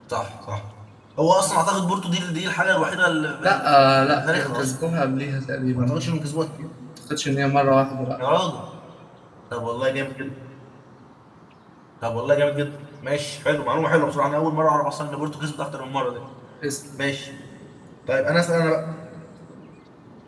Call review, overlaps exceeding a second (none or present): present